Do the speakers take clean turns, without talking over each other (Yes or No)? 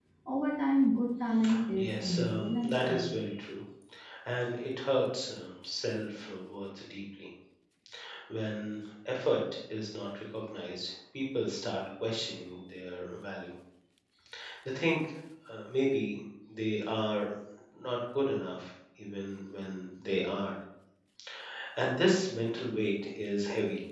No